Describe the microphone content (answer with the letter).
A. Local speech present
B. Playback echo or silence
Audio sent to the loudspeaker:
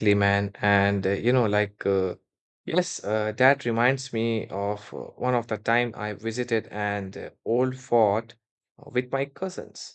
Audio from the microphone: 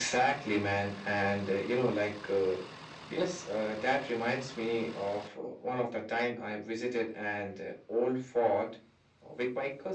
B